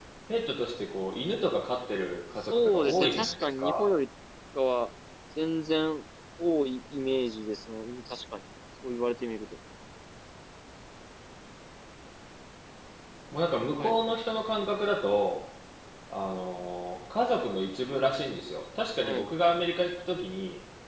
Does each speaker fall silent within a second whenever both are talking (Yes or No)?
No